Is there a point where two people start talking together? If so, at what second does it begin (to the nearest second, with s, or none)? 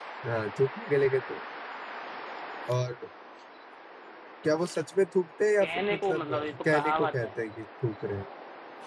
6 s